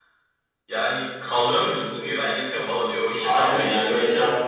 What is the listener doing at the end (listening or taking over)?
taking over